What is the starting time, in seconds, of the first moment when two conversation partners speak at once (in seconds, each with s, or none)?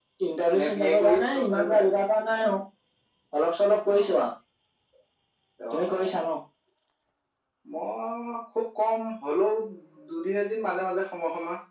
0.6 s